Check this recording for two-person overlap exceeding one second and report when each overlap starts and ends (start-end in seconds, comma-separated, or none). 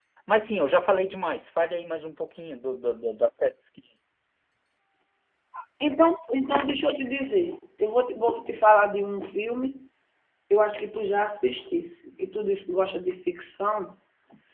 none